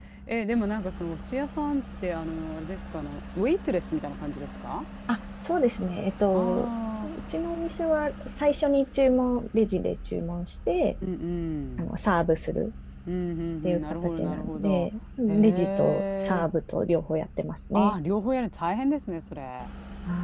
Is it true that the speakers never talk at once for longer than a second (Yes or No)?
No